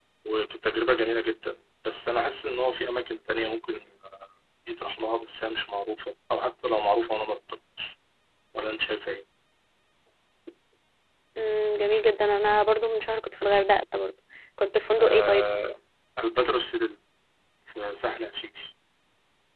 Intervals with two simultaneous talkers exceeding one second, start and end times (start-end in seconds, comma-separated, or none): none